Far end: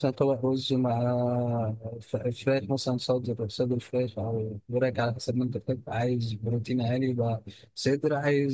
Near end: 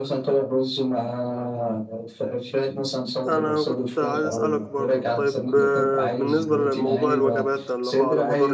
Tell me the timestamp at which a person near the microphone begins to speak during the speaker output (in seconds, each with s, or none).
3.3 s